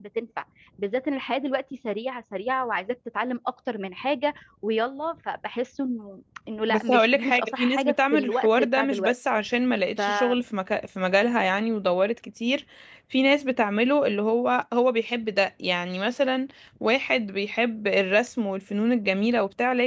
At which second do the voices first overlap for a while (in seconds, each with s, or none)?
6.7 s